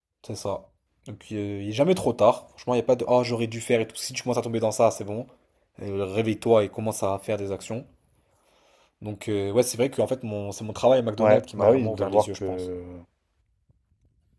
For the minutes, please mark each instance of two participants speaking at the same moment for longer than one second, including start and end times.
11.2-12.6

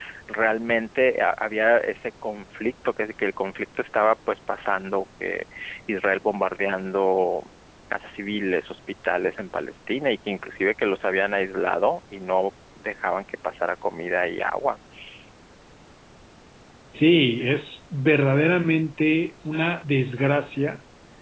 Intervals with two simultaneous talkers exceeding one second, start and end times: none

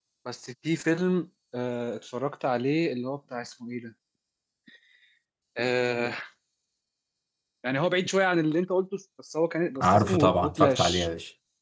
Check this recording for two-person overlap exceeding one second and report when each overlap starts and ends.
9.8-11.1

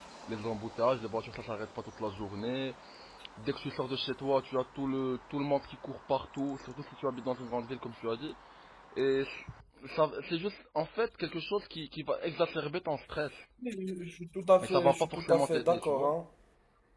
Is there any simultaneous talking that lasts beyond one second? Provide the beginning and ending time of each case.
14.6-16.1

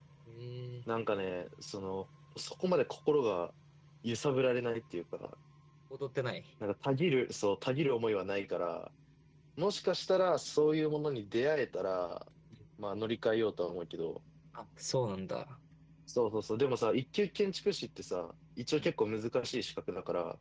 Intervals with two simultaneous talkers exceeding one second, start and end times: none

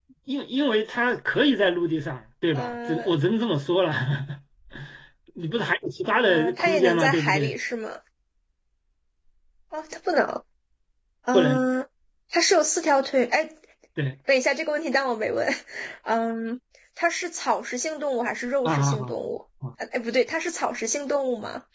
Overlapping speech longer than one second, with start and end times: 6.2-7.5

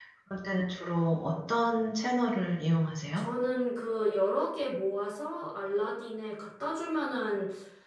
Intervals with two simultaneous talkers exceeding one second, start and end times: none

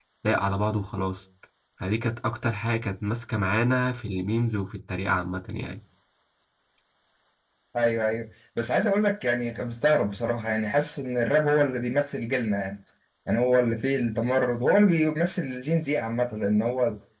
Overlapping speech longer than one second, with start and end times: none

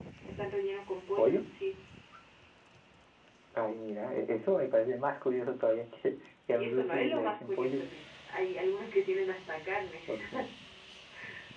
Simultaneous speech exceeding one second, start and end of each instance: 6.6-7.8

